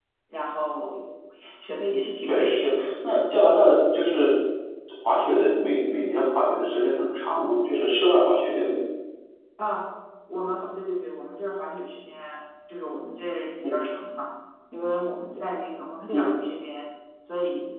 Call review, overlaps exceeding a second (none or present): none